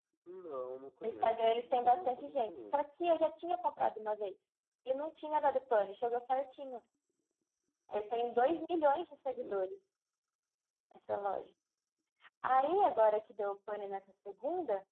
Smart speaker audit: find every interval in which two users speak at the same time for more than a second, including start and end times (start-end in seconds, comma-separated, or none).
1.0-2.8